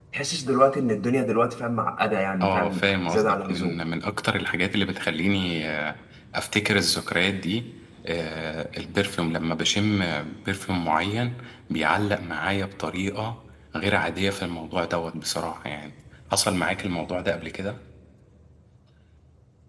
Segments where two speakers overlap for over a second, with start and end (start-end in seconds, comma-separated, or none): 2.4-3.8